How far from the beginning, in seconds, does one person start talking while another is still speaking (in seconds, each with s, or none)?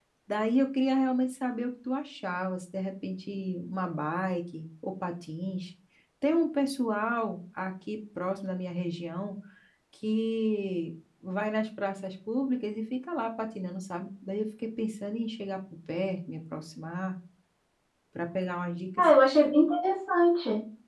none